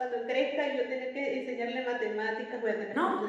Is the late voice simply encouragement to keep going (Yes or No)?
No